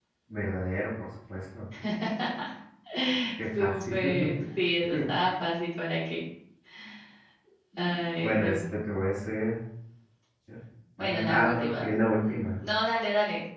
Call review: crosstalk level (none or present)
present